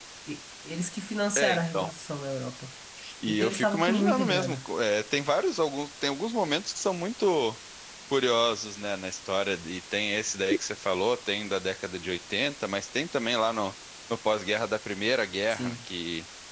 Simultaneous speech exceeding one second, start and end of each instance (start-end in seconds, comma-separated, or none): 3.3-4.6